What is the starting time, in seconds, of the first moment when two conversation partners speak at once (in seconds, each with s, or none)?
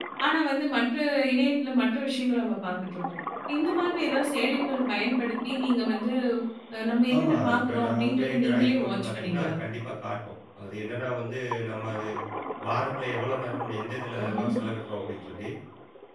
7.1 s